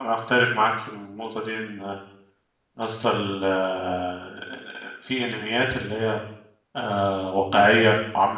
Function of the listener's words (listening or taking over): listening